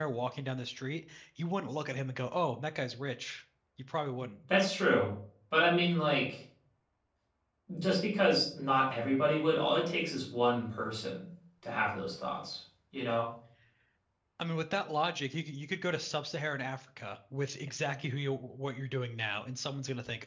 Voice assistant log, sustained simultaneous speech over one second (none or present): none